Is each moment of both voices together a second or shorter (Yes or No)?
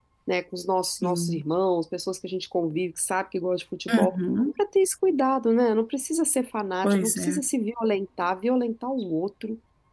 Yes